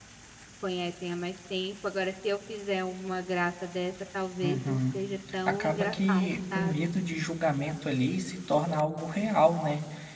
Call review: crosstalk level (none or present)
present